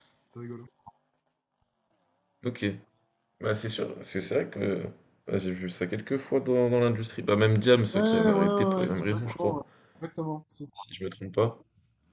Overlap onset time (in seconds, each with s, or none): 7.9 s